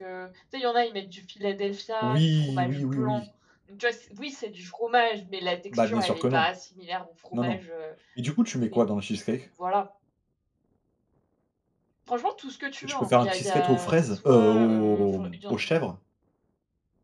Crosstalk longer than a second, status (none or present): present